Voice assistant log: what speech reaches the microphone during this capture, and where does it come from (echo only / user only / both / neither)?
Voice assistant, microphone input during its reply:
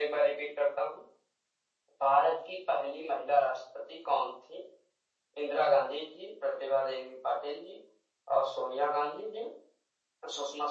echo only